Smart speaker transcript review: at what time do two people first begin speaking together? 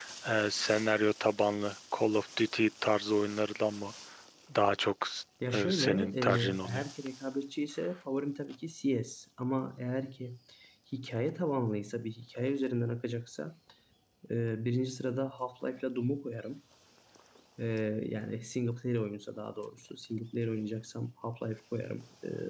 5.5 s

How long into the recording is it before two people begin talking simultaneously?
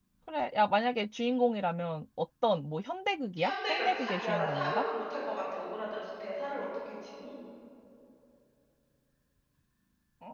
3.4 s

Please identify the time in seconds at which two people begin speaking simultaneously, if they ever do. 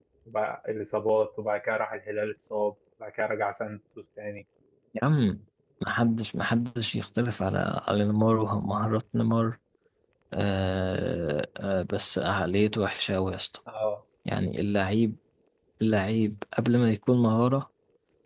none

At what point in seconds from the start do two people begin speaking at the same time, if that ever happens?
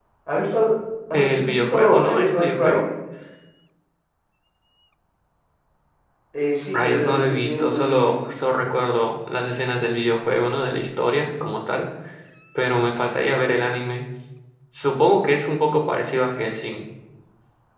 1.1 s

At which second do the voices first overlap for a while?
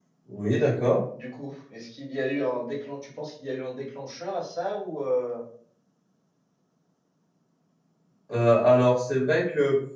none

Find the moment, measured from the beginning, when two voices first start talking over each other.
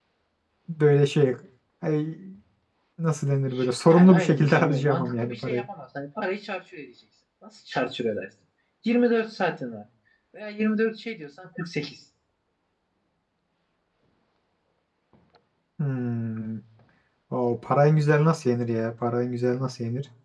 3.9 s

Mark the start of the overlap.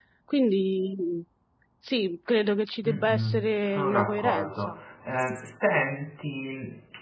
2.9 s

